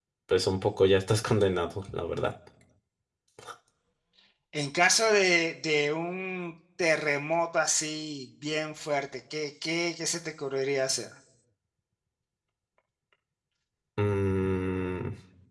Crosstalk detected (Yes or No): No